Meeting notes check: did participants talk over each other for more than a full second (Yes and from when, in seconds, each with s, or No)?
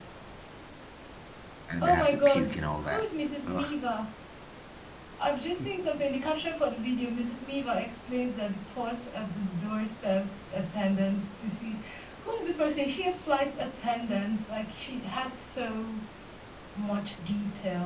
Yes, from 1.8 s